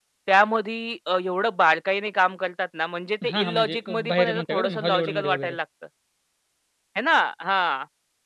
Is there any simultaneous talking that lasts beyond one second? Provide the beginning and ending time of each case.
3.3-5.6

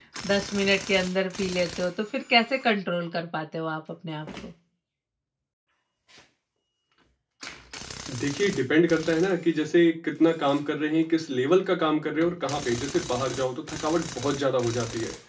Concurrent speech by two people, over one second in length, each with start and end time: none

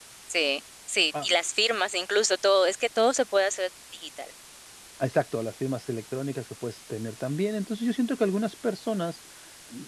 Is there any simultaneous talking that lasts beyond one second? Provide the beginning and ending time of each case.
none

